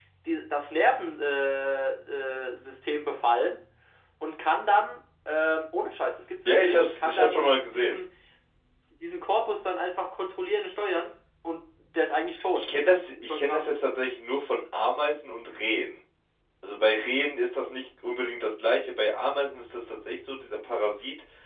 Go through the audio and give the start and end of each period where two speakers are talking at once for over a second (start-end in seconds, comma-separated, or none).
6.4-8.0